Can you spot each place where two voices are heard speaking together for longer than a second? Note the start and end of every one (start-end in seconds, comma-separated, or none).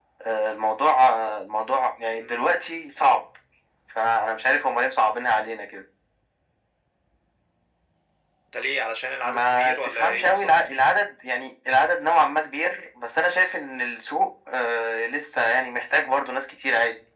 9.2-10.5